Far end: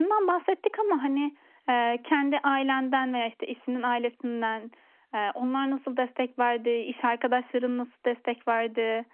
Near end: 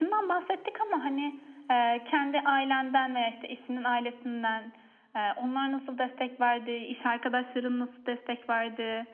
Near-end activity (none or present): none